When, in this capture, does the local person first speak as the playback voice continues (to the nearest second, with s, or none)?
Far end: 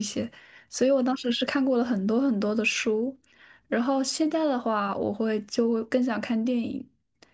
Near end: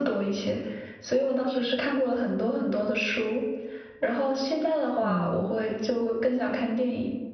5 s